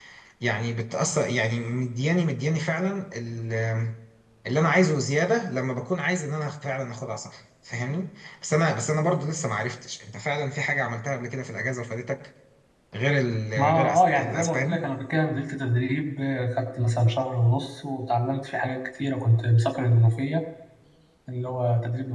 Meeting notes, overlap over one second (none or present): present